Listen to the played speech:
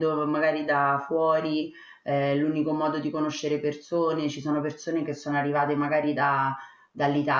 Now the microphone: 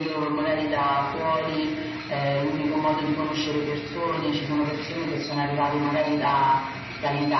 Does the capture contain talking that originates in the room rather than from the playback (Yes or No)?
No